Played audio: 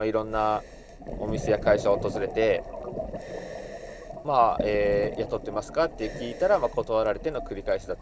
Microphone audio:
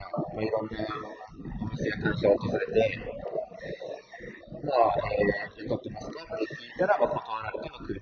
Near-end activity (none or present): none